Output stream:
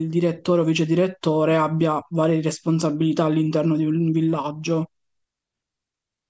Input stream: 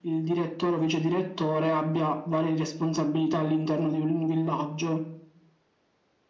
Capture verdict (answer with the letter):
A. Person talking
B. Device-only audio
B